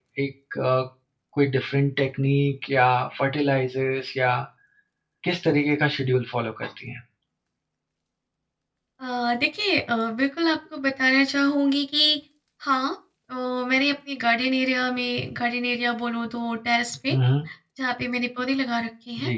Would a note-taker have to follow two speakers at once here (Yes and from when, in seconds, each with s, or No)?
No